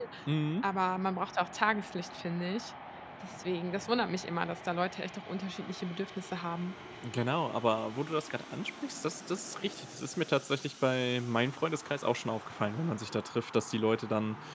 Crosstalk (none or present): none